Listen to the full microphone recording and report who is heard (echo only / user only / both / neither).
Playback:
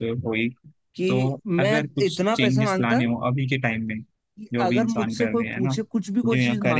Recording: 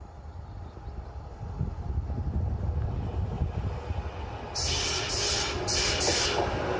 neither